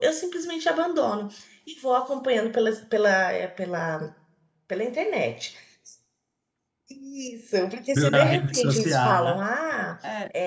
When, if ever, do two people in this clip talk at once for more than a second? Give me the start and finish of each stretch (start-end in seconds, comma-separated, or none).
8.0-9.4